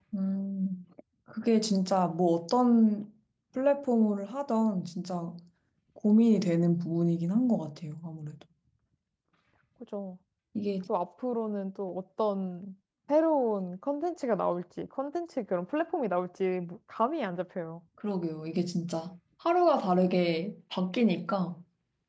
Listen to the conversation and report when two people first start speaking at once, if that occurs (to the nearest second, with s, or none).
none